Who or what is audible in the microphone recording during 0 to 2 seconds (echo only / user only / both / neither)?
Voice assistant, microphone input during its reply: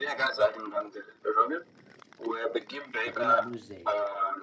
echo only